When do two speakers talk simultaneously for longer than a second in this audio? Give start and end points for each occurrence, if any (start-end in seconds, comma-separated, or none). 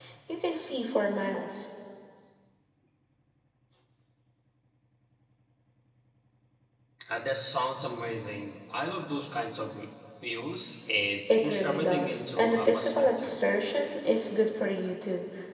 11.4-13.3